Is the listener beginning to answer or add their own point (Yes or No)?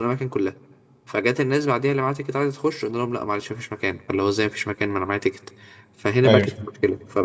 No